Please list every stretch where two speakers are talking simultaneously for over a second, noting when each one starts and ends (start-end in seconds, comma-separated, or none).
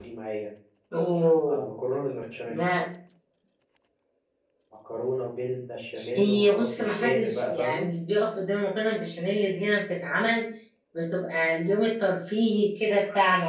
6.2-7.9